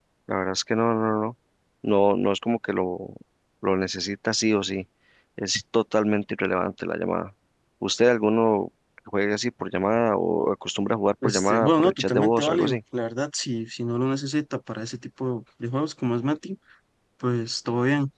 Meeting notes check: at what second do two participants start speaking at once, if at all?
11.2 s

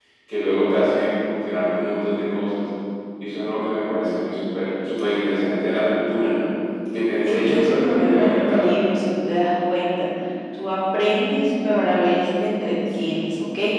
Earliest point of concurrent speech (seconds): 7.3 s

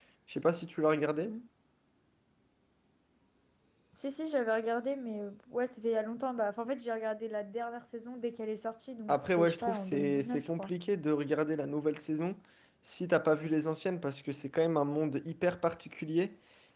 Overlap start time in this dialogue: 9.1 s

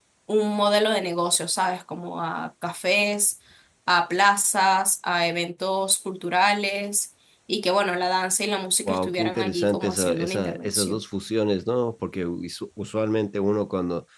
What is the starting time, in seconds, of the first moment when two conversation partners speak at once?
8.8 s

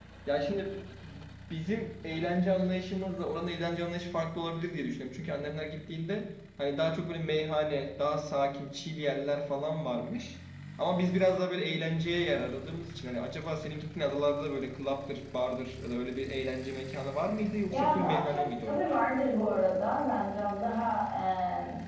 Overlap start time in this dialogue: 17.7 s

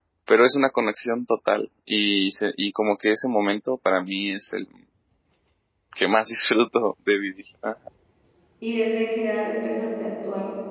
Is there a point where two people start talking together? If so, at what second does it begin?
none

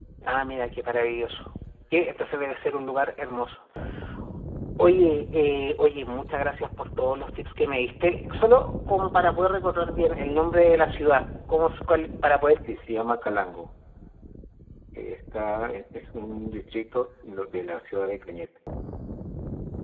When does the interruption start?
none

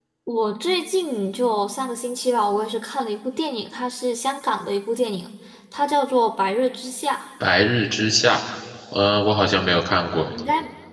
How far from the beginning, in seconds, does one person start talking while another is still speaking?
none

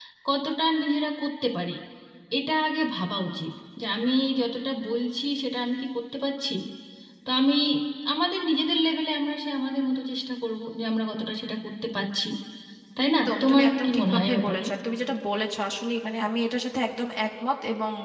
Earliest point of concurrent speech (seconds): 13.2 s

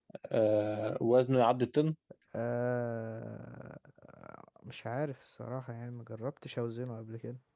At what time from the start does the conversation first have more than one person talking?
none

